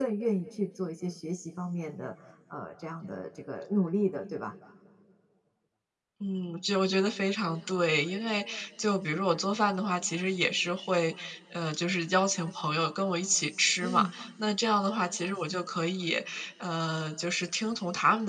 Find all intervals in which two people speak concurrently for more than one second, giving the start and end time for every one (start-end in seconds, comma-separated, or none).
none